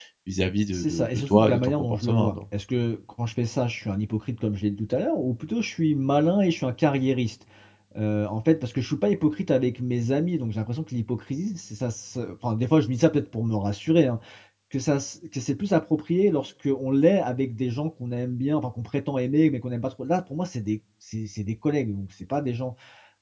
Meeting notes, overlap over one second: present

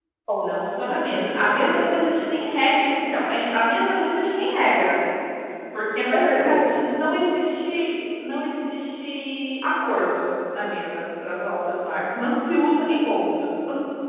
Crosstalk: present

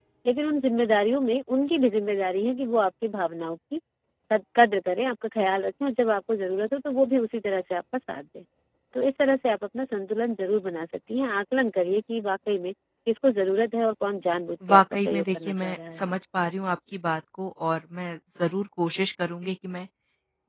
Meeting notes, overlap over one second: present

